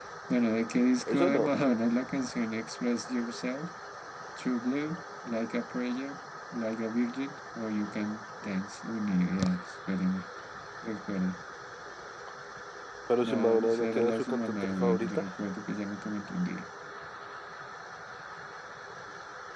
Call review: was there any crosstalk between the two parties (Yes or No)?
Yes